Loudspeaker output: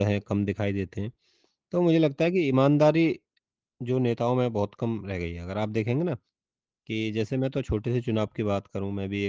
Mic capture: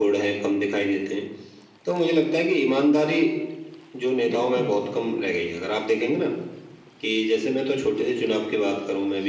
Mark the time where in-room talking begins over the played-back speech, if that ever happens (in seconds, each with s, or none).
4.3 s